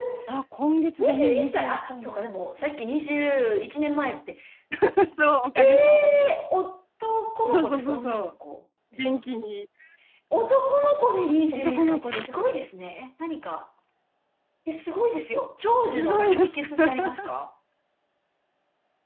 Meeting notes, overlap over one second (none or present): present